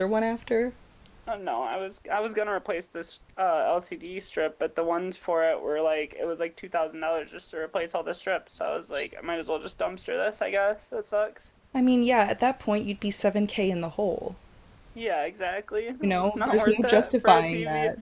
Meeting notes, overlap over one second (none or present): present